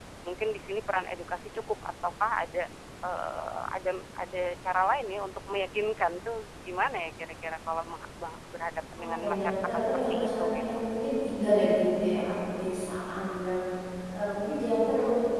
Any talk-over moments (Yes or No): Yes